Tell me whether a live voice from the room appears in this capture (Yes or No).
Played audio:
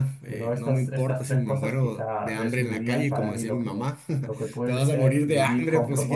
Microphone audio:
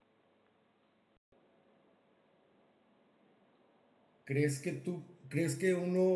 Yes